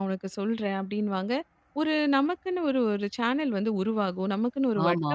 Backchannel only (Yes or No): Yes